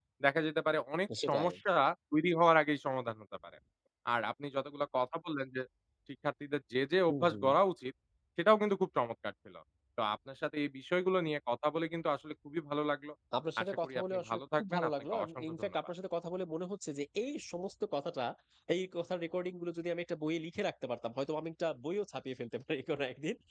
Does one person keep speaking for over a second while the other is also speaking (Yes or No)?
Yes